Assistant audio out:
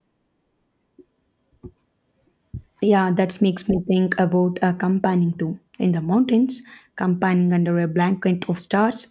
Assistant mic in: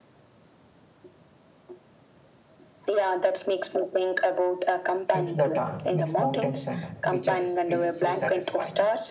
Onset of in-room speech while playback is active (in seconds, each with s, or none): 5.1 s